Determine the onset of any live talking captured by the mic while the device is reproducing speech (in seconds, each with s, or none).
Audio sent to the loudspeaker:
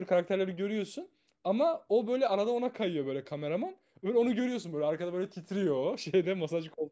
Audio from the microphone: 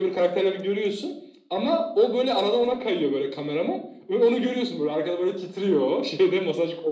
none